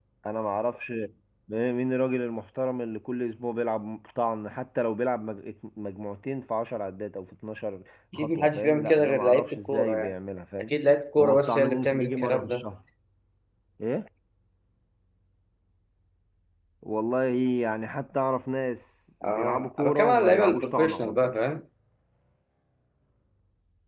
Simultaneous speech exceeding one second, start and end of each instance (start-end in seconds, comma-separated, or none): 8.2-10.1, 11.2-12.7, 19.2-21.3